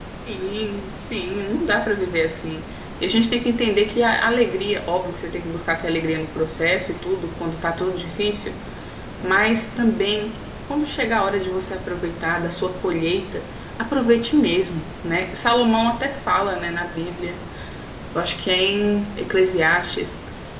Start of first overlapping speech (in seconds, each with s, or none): none